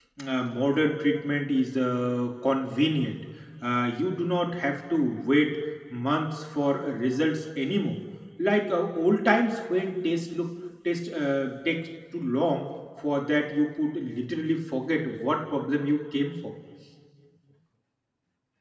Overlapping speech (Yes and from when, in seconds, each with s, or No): No